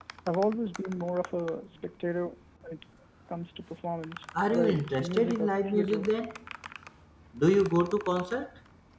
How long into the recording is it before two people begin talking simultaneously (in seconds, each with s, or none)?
4.3 s